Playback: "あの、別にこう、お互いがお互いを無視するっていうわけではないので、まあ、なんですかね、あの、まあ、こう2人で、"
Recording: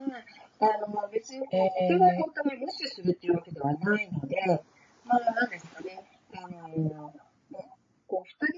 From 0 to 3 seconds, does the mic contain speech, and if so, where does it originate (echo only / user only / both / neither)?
both